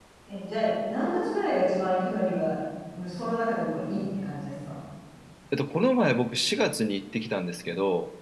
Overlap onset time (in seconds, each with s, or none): none